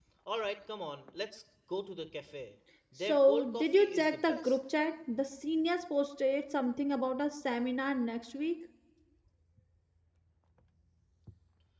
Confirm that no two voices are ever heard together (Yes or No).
No